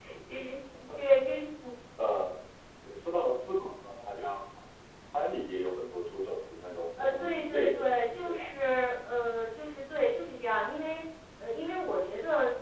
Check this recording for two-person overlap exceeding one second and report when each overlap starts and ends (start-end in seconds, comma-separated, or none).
7.0-8.5